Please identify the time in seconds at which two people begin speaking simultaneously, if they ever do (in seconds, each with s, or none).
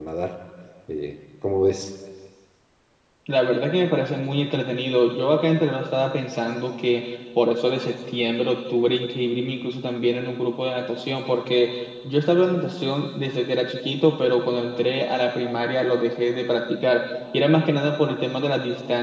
none